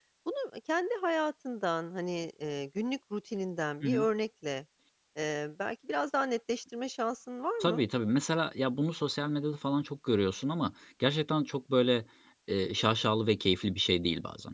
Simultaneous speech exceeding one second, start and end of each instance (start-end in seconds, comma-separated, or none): none